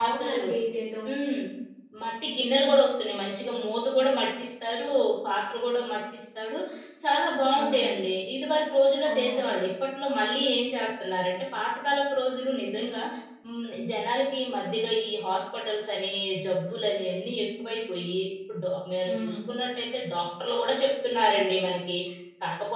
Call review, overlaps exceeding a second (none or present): none